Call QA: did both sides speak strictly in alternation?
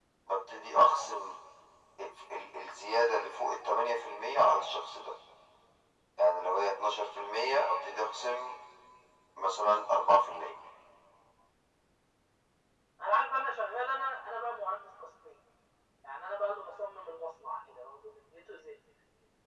Yes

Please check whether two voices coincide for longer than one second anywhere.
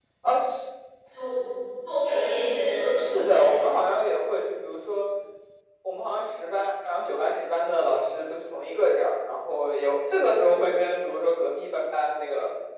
Yes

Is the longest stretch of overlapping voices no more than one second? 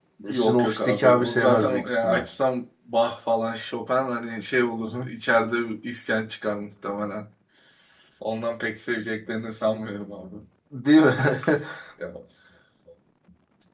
No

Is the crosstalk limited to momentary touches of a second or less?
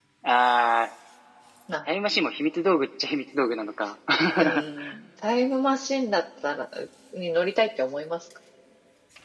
Yes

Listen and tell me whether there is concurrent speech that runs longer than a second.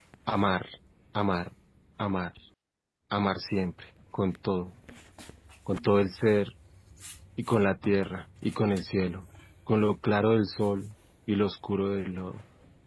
No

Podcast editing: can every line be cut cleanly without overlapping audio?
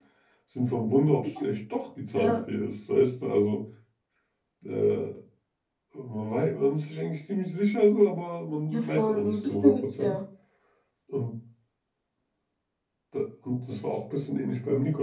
No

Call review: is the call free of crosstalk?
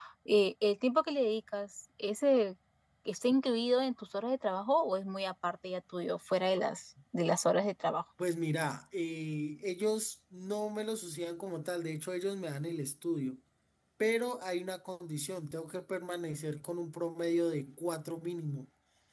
Yes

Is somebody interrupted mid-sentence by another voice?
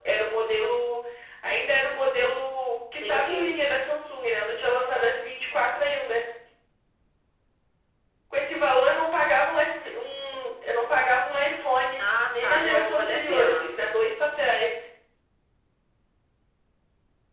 Yes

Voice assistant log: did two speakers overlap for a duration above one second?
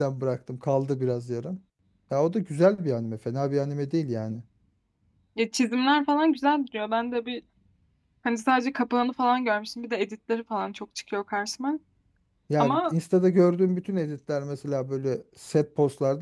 No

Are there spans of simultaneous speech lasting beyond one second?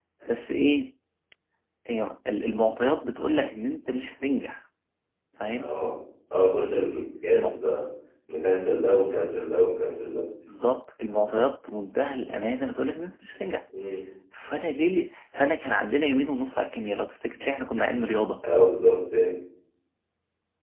No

